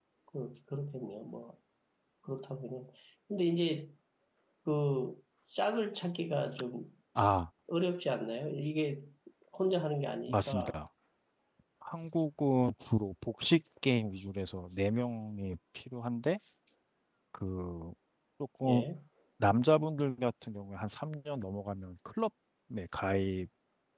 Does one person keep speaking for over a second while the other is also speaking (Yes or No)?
No